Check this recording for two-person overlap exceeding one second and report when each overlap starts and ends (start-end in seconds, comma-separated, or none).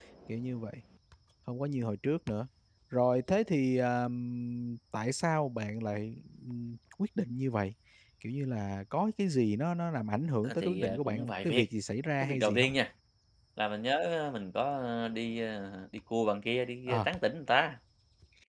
10.4-11.6